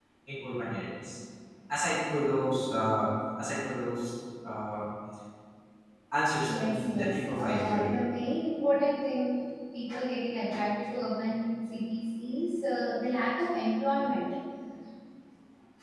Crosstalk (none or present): present